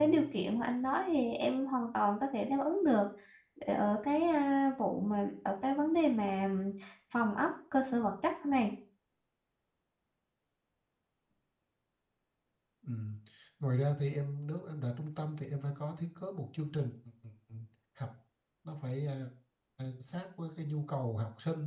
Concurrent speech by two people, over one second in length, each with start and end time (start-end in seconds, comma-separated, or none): none